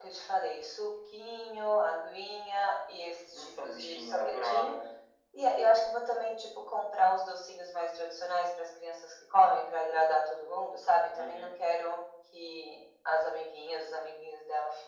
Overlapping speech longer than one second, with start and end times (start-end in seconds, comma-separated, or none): 3.3-4.8